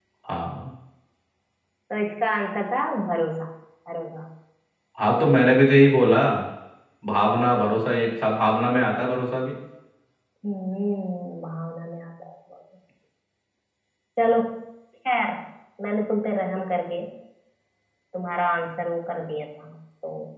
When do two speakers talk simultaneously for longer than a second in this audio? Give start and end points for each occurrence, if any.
none

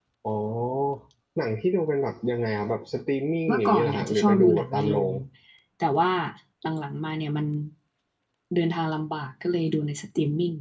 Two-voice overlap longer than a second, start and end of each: 3.5-5.1

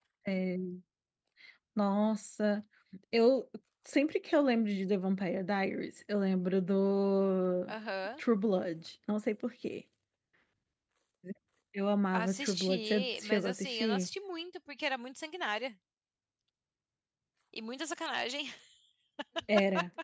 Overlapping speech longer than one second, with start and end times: 12.1-14.1

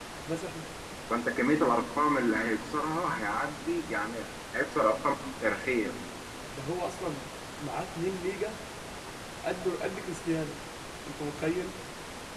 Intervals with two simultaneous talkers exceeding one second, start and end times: none

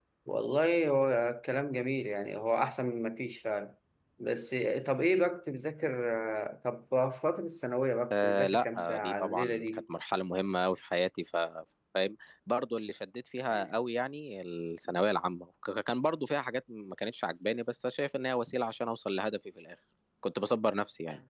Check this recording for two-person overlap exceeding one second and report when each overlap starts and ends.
8.1-9.8

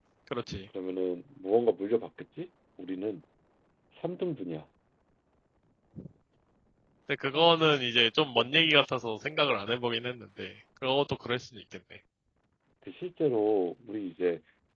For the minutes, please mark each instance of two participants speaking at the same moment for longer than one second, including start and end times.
none

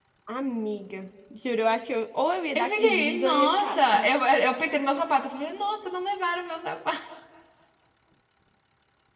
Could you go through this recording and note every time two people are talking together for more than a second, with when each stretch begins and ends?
2.6-4.1

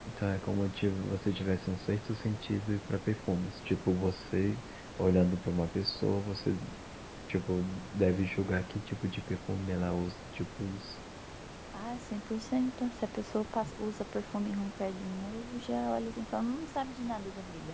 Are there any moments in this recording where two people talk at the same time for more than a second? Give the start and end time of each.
none

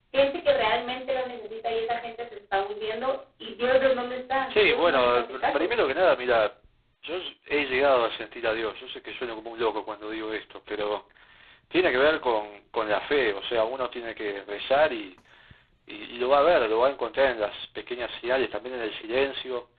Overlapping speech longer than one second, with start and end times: 4.5-5.7

